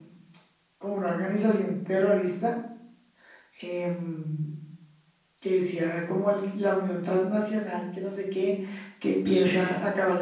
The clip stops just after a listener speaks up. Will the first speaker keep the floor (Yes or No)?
Yes